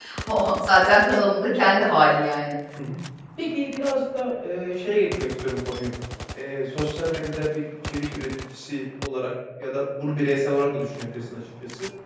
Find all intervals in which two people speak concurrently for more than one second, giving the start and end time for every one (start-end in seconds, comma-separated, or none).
none